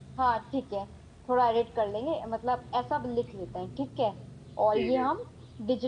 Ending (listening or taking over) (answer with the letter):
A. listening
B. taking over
A